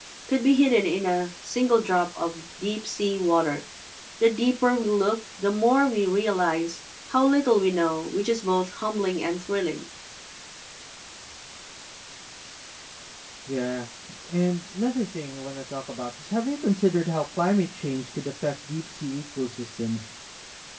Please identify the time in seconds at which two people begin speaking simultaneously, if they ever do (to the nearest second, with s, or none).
none